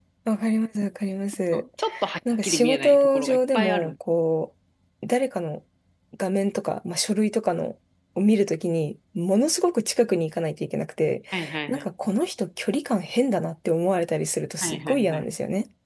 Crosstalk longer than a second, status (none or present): present